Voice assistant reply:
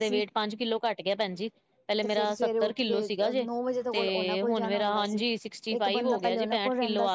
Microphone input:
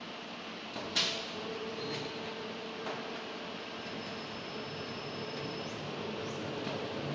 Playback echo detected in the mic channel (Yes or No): No